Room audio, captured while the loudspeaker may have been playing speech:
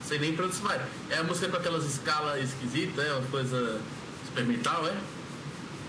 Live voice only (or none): none